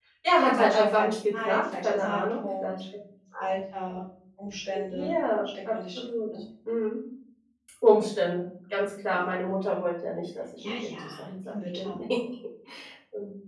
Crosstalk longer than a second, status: present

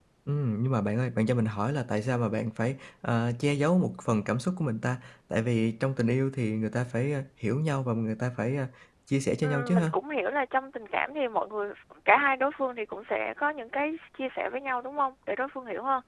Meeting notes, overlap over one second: none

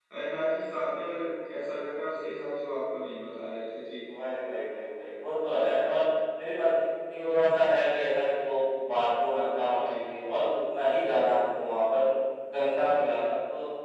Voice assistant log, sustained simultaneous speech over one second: none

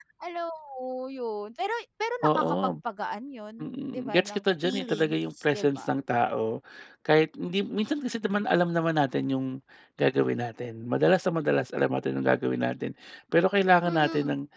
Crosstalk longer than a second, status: present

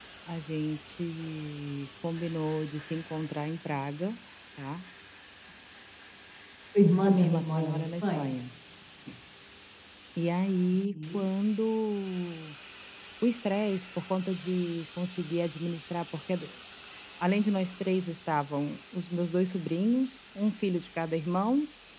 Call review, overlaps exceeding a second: present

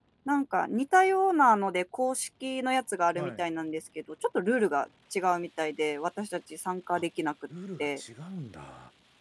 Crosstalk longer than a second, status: none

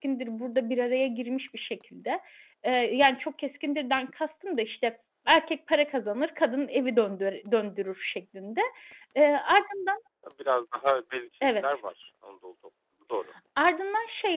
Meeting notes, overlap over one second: none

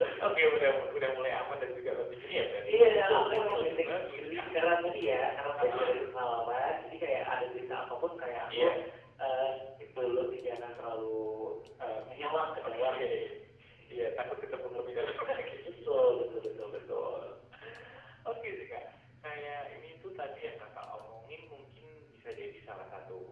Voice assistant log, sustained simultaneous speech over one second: present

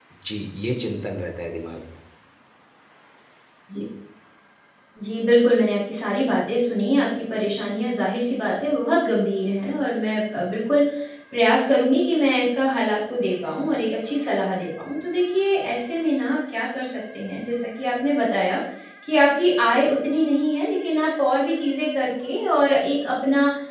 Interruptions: none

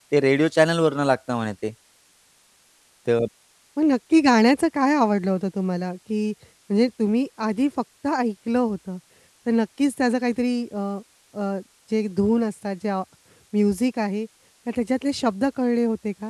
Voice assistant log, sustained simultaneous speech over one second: none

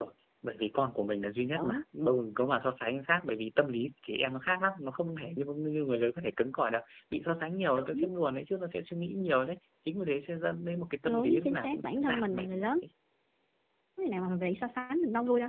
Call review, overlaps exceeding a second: present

